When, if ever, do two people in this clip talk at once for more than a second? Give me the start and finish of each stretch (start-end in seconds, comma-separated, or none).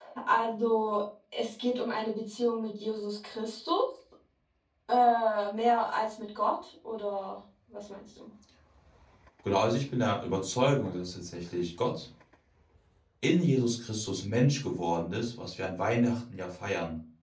none